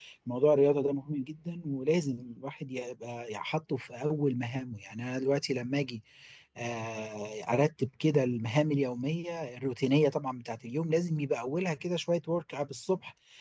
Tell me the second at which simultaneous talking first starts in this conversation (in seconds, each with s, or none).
none